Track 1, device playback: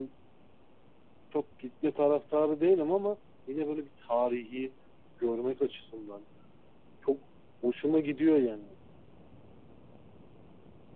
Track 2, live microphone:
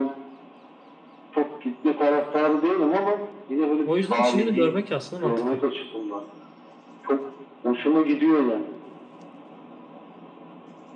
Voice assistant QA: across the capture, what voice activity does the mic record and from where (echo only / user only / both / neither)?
both